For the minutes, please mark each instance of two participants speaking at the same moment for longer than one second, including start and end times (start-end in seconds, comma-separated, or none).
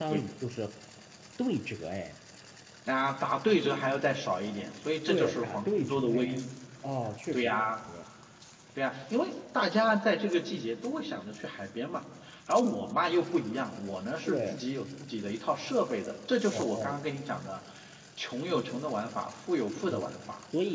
5.1-6.4